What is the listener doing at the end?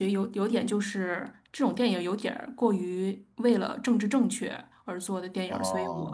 listening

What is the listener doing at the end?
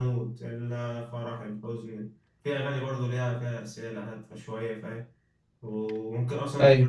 listening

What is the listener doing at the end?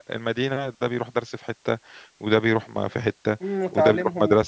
taking over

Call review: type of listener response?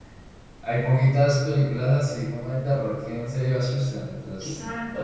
taking over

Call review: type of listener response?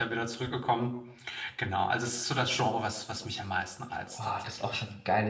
taking over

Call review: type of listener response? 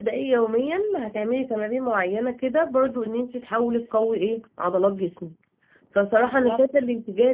listening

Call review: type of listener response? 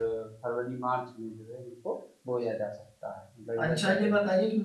taking over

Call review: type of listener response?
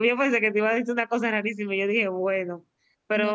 listening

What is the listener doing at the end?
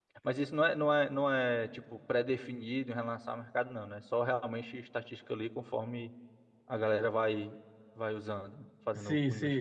taking over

